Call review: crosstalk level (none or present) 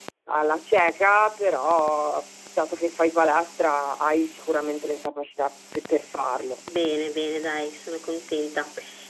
none